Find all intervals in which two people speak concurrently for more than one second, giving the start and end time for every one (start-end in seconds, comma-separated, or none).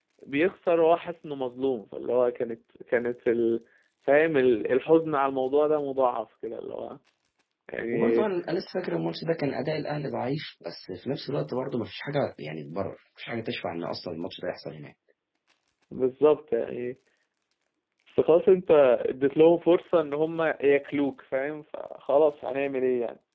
none